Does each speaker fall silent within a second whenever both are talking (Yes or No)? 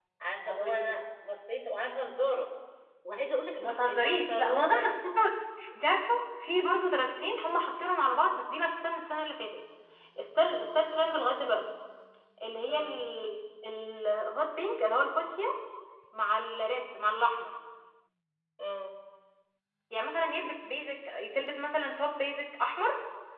No